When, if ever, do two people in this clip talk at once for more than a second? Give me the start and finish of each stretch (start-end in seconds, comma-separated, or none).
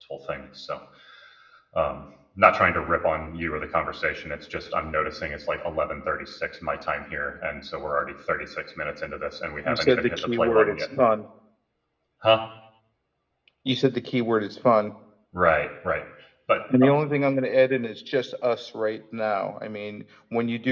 9.7-10.9